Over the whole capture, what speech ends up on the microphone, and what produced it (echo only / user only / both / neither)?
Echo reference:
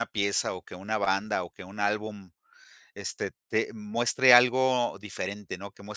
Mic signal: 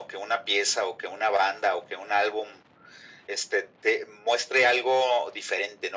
echo only